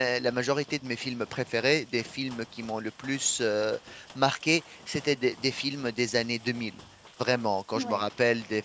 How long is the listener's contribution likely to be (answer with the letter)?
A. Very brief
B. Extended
A